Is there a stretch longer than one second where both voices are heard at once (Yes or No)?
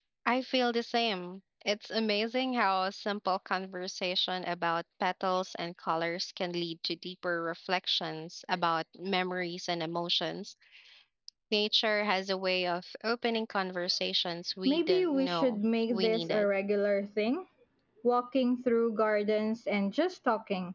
Yes